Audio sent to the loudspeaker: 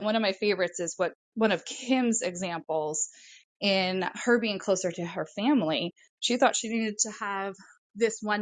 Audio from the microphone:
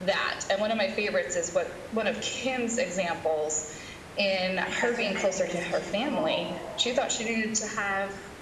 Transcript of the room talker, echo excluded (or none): my husband made me this cute little